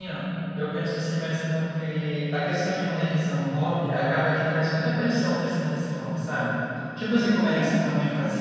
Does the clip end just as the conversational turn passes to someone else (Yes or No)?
No